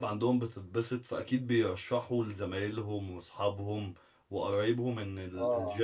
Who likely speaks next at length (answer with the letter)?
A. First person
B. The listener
A